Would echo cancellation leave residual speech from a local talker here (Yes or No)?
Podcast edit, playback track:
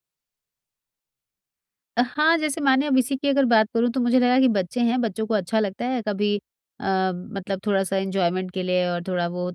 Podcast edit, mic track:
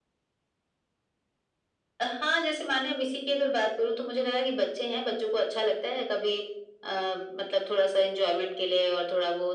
No